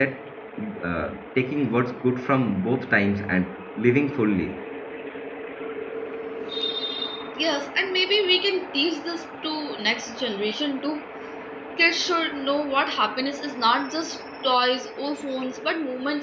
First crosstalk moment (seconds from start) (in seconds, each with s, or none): none